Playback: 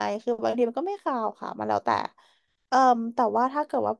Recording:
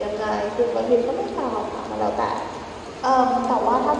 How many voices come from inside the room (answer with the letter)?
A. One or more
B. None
B